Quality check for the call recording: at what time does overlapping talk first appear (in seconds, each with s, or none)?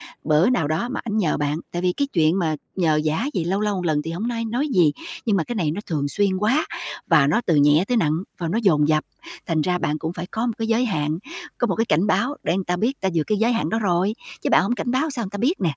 none